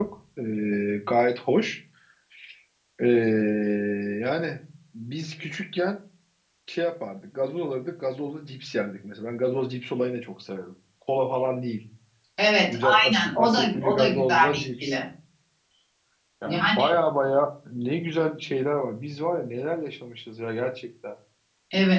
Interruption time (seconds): 12.7 s

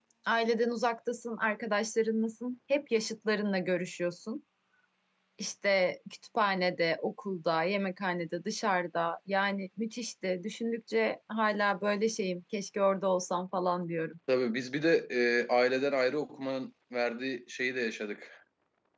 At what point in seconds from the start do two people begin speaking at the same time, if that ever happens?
none

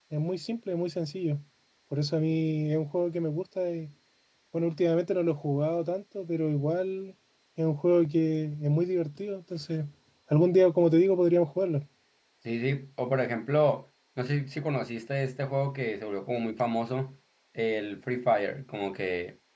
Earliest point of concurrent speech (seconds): none

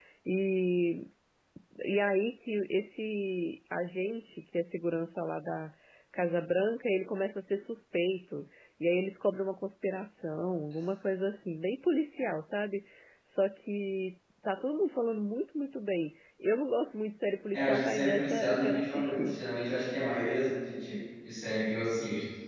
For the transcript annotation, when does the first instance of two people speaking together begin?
17.5 s

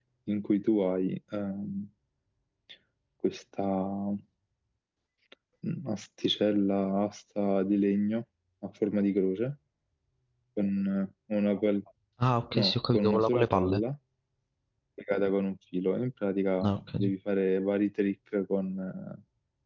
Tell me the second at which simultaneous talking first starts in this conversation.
12.5 s

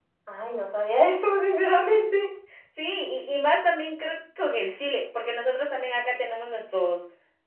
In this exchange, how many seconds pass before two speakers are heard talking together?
none

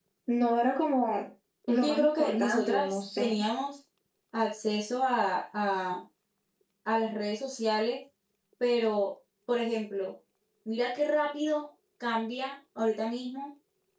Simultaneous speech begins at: 1.7 s

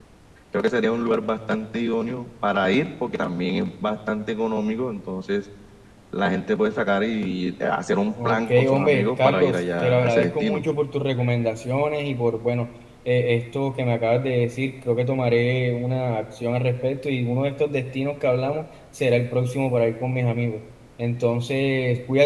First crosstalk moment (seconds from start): 8.2 s

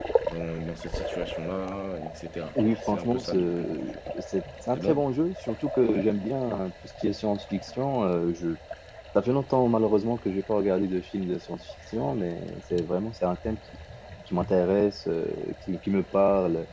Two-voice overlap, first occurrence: 2.6 s

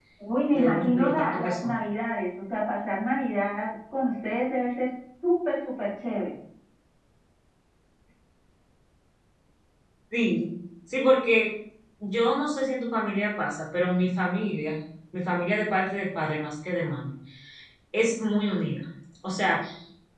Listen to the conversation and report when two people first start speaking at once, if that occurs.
0.5 s

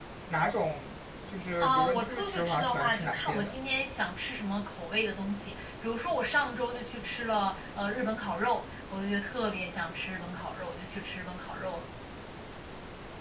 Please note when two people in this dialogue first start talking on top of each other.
1.6 s

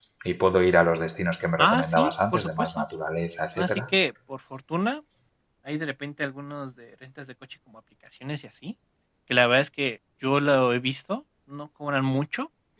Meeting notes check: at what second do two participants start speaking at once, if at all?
1.6 s

